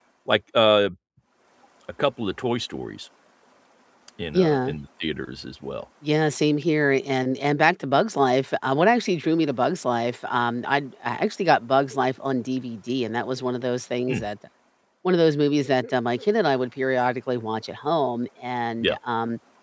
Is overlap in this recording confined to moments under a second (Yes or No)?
Yes